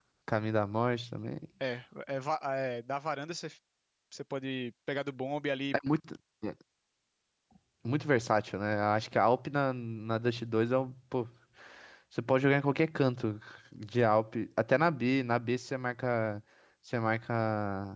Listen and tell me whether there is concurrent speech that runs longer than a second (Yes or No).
No